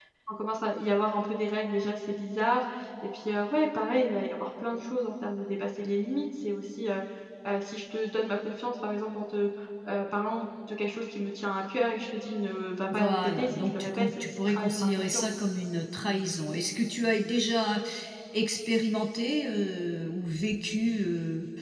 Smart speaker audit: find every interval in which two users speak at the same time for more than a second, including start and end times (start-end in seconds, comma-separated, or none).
12.9-15.2